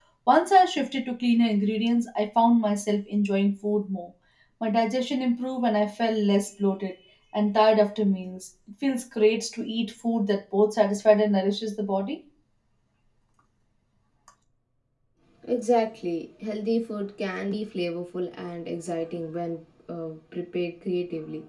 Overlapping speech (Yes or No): No